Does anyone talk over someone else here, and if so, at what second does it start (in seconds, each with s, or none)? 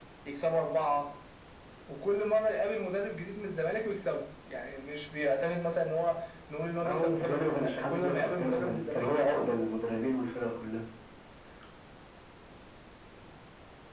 6.8 s